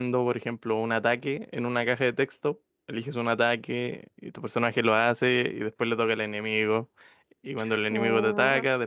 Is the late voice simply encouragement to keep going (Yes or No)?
Yes